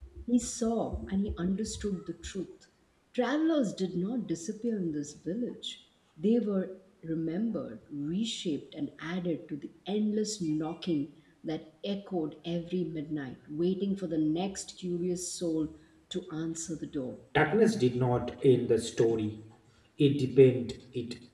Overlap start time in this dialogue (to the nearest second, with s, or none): none